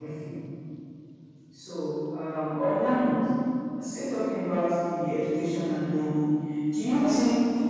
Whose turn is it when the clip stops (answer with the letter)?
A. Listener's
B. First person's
B